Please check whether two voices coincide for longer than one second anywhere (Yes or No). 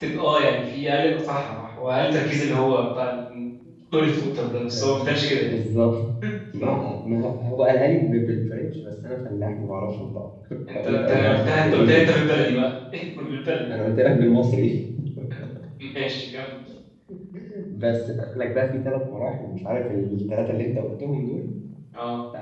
Yes